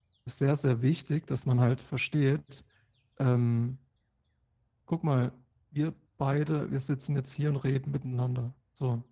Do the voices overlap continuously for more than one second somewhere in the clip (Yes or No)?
No